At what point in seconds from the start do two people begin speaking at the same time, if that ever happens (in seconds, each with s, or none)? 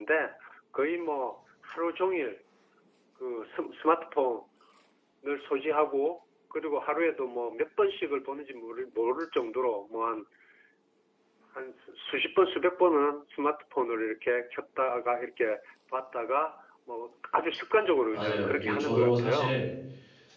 18.1 s